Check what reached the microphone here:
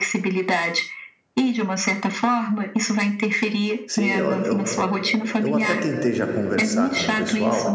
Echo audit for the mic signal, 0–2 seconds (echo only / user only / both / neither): echo only